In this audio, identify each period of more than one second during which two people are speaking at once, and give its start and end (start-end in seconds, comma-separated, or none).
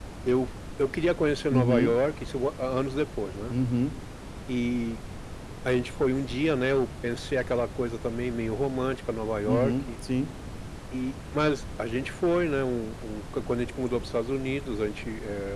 none